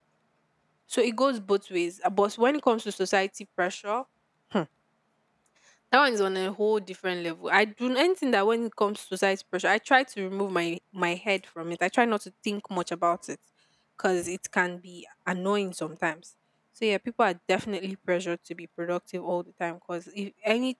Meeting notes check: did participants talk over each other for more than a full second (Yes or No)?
No